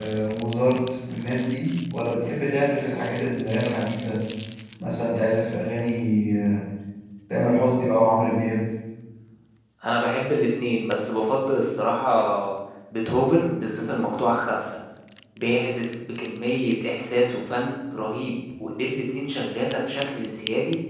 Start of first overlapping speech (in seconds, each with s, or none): none